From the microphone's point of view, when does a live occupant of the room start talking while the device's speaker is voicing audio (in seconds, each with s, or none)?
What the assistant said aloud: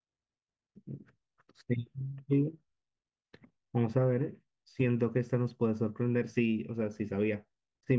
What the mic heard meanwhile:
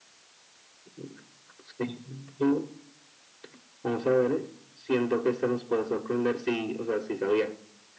none